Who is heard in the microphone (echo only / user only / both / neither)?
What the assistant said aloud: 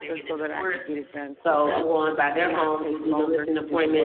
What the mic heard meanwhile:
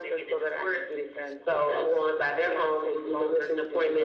echo only